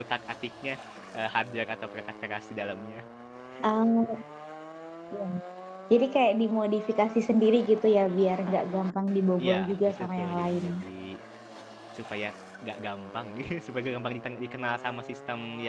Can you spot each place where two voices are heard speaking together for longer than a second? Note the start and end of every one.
9.4-10.7

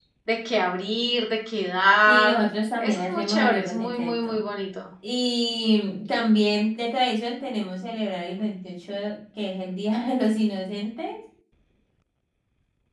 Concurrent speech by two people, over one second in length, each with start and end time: 2.8-4.4

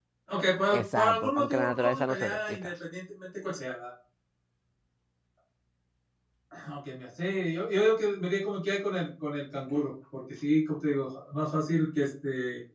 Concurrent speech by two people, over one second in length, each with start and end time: 0.7-2.7

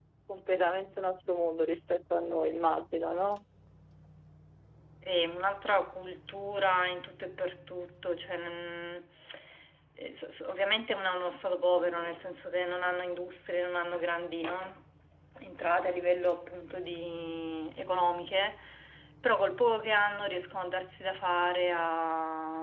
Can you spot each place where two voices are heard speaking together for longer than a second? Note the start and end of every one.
none

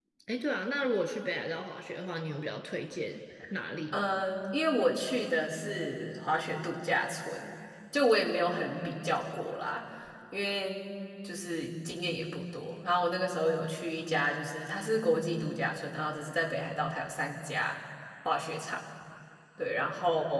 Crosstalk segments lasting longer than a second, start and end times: none

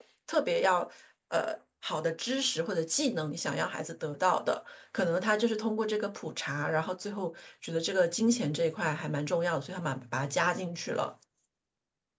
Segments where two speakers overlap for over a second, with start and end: none

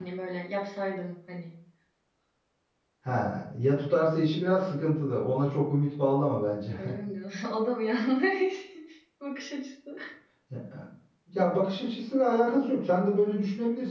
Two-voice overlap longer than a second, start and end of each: none

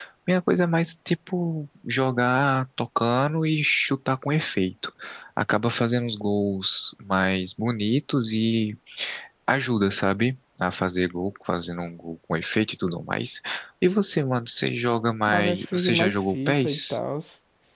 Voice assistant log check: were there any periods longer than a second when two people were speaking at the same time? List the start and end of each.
15.2-17.0

